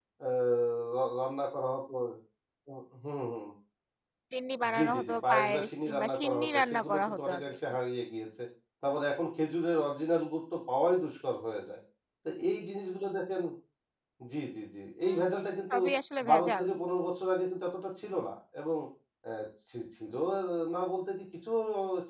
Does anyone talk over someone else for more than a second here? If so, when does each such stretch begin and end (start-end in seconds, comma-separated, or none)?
4.8-7.5